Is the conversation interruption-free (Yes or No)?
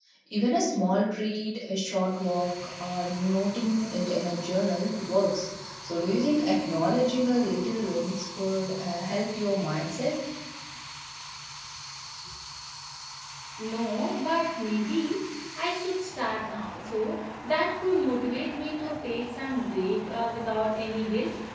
Yes